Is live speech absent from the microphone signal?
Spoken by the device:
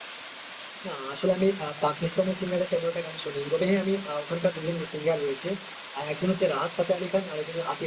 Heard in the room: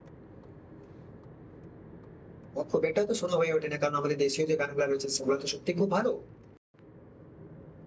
No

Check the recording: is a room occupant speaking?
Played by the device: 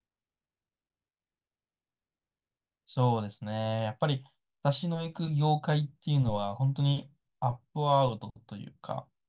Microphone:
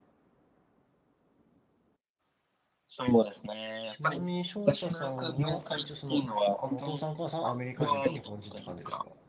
Yes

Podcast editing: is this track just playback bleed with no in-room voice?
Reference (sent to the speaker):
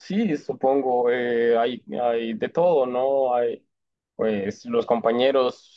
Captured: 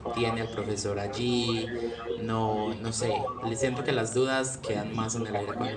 No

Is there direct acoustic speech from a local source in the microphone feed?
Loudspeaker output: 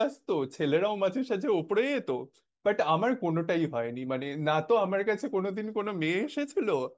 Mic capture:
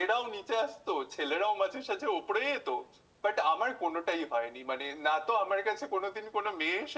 No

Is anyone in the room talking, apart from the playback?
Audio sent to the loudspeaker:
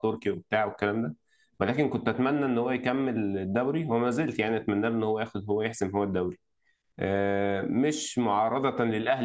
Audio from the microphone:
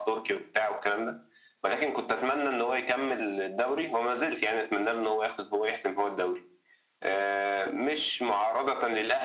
No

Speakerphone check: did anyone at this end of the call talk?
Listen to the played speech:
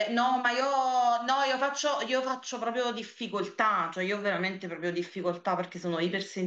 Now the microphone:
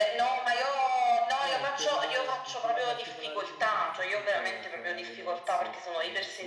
Yes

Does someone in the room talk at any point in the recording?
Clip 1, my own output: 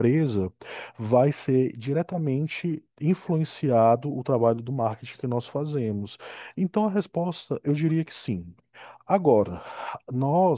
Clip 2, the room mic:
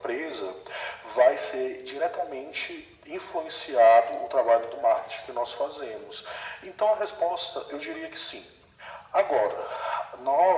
No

